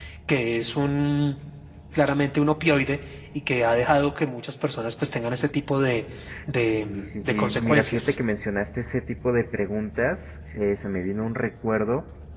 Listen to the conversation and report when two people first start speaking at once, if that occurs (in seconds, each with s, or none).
6.6 s